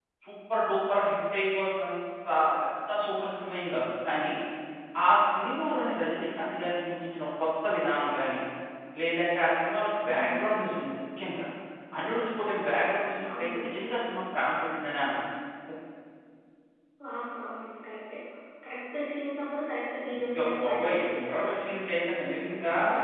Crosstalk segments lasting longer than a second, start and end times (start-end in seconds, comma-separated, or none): 20.2-21.6